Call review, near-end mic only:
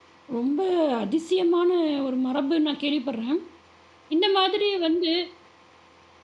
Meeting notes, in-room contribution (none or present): present